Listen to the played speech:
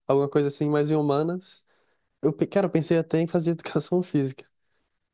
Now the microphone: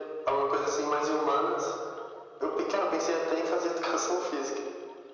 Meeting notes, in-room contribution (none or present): none